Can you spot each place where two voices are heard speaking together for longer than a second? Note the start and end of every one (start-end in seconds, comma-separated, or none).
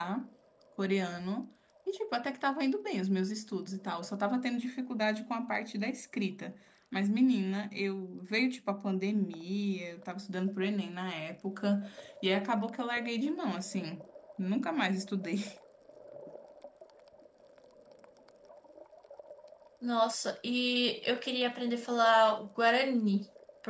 none